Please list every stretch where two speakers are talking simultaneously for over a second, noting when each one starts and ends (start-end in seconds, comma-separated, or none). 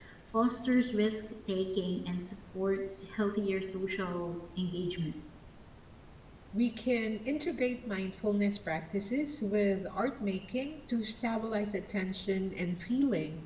none